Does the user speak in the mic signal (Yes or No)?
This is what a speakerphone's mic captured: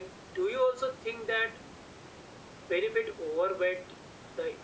No